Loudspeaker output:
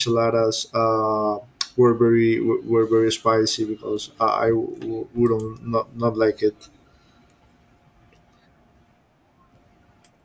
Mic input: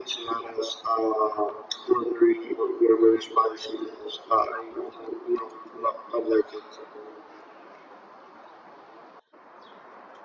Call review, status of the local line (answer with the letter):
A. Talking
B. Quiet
B